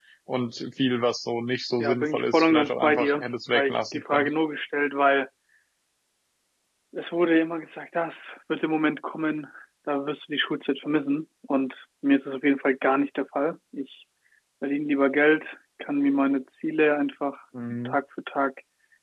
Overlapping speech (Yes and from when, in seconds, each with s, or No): Yes, from 1.8 s